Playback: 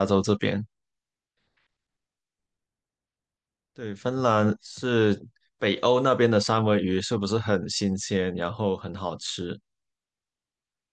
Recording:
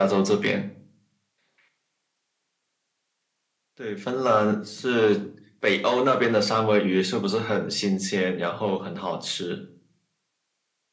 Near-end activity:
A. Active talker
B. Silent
B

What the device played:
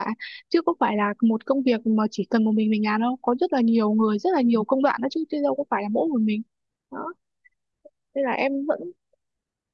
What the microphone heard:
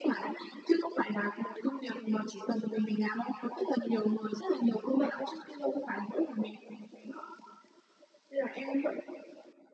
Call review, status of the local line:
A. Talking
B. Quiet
B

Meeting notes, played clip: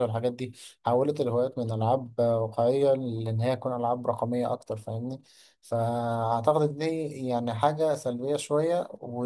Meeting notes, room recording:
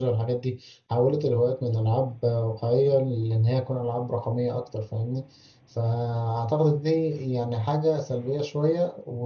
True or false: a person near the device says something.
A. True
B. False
B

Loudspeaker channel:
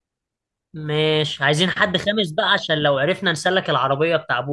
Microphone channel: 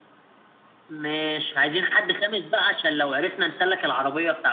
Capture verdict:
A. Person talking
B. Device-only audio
B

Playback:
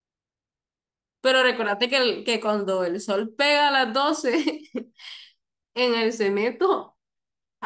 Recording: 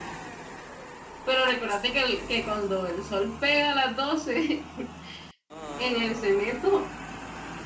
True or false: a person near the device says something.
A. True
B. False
B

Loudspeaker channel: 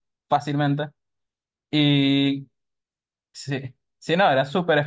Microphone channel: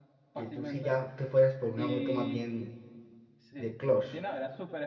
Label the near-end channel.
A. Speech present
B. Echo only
A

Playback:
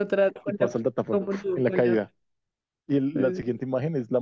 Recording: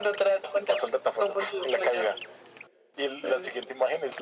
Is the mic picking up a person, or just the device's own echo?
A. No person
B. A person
A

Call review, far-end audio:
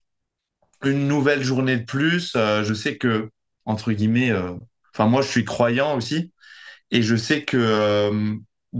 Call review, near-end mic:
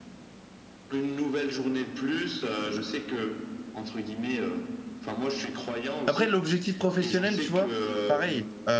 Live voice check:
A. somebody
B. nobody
A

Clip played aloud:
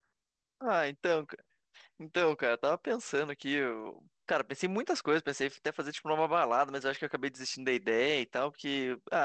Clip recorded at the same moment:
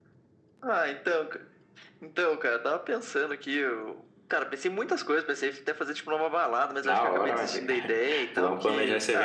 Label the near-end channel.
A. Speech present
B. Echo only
A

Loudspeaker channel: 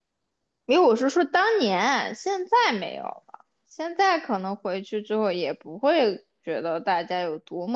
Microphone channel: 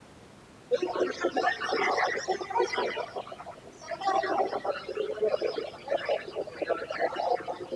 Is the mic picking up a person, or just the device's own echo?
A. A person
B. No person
B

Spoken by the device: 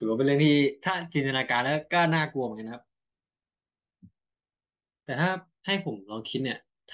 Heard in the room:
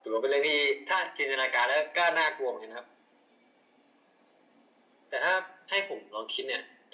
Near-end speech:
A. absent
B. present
A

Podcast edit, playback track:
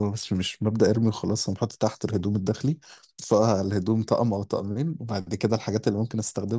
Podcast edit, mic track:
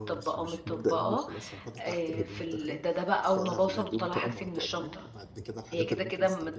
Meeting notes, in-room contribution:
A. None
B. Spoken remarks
B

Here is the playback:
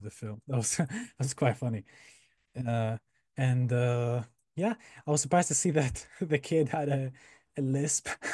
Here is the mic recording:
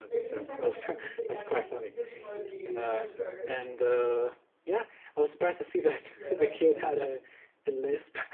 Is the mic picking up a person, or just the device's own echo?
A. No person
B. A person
B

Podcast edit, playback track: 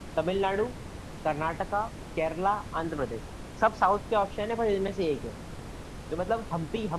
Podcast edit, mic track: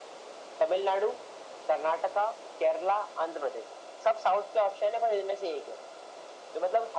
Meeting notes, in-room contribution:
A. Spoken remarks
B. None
B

